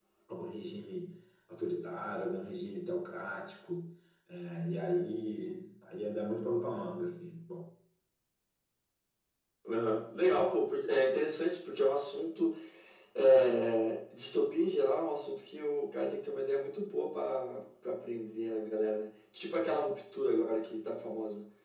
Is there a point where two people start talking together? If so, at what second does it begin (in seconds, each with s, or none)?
none